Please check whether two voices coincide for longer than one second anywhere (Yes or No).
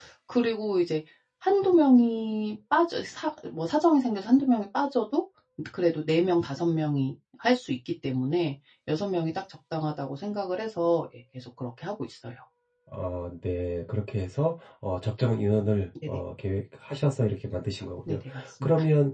No